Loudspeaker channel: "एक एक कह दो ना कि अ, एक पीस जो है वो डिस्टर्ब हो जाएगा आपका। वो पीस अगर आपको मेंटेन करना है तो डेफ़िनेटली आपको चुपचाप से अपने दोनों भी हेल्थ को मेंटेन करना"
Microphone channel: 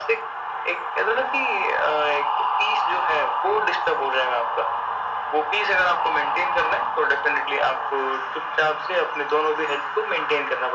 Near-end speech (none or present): none